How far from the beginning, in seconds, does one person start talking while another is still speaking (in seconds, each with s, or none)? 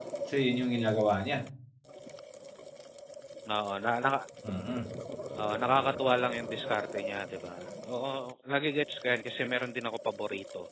none